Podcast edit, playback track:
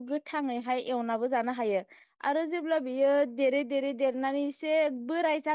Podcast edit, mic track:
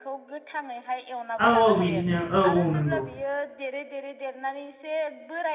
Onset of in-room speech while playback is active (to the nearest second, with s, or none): 1 s